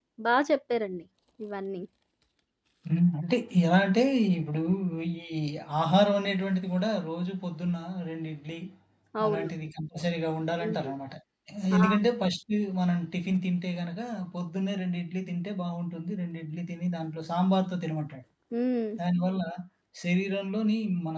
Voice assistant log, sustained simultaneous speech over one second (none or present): none